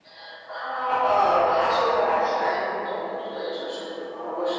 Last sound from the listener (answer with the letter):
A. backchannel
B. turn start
A